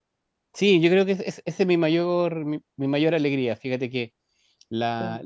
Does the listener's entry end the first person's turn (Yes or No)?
No